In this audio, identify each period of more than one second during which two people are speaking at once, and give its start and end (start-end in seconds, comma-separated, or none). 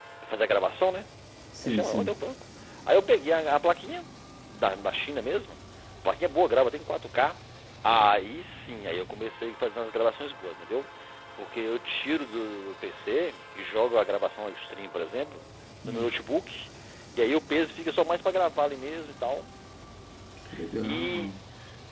none